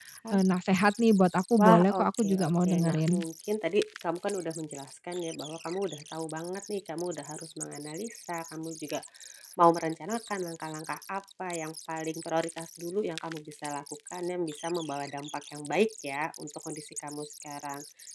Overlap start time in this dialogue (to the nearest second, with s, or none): 2 s